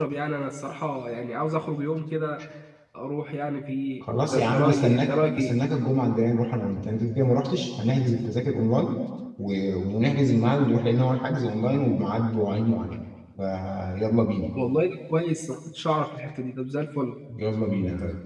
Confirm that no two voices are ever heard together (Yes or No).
No